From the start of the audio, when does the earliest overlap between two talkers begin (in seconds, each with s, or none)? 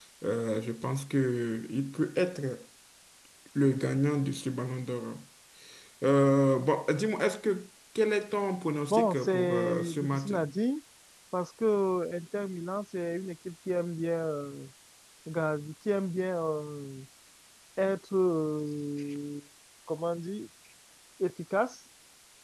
8.9 s